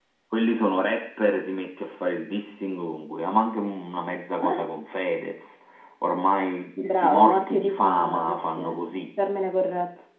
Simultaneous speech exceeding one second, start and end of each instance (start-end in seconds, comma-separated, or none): 6.8-8.9